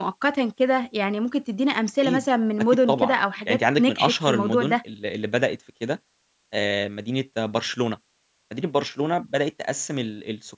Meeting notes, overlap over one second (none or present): present